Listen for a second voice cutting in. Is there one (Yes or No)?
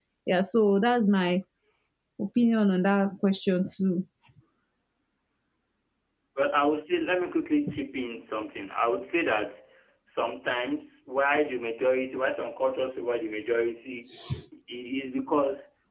No